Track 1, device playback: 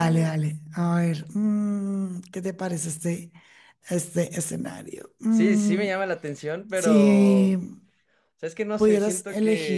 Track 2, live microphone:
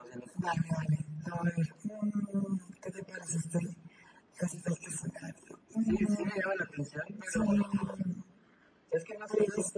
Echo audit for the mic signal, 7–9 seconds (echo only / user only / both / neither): echo only